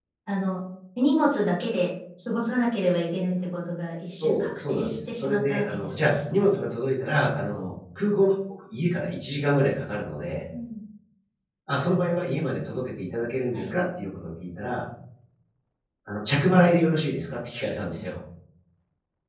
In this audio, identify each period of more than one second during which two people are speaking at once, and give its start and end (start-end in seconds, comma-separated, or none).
4.2-6.6